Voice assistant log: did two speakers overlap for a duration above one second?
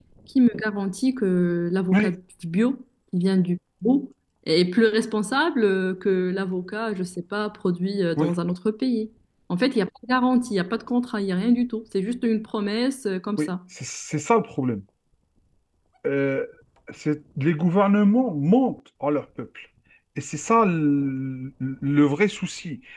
No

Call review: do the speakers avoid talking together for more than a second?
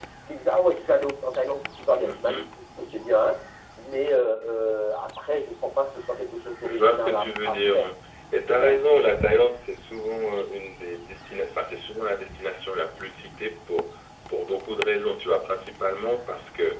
No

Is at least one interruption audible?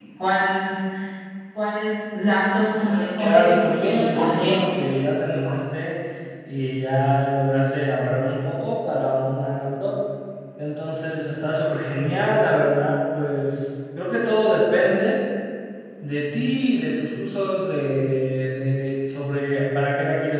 Yes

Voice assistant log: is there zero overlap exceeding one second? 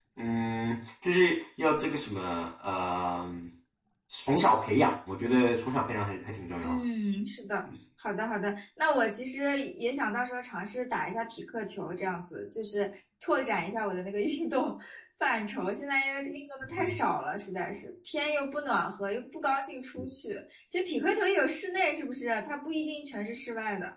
Yes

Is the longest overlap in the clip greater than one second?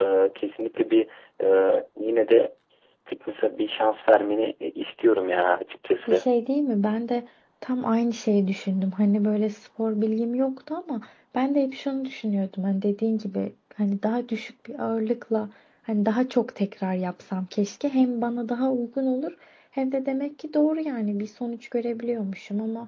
No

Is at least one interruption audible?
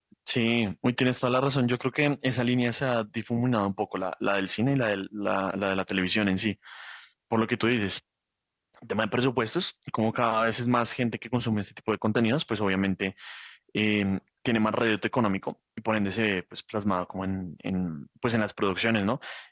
No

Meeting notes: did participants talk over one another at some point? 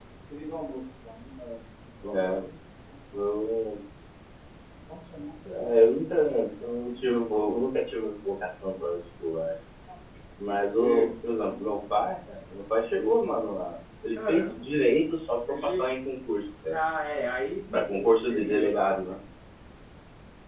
Yes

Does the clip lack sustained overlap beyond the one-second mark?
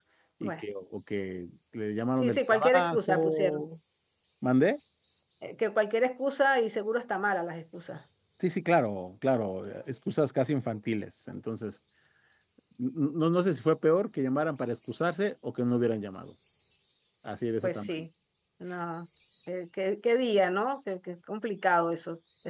No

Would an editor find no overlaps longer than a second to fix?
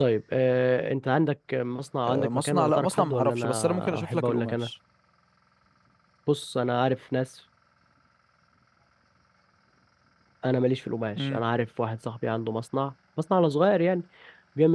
No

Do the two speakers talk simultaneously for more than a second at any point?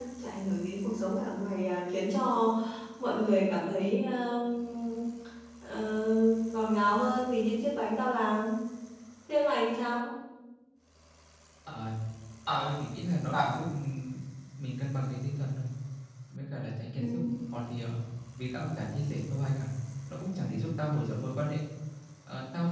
No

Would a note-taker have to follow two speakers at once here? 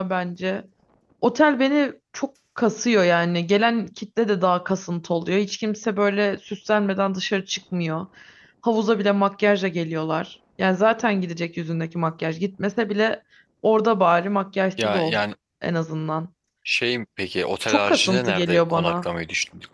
Yes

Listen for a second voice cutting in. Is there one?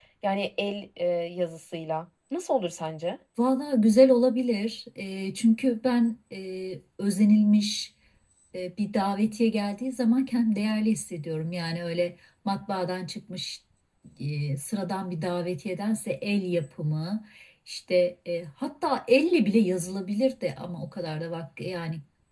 No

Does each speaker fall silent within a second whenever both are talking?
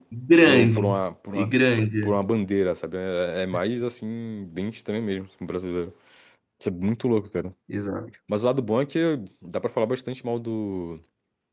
Yes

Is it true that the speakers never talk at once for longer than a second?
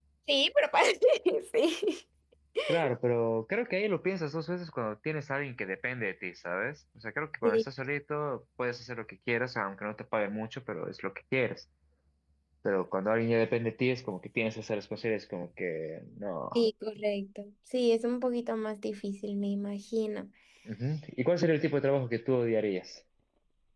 Yes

